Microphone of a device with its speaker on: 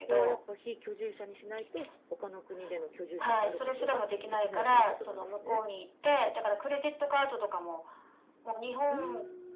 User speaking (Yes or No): Yes